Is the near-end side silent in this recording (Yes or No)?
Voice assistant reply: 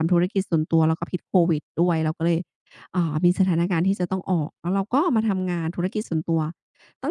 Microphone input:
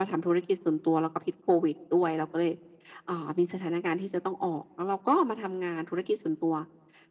Yes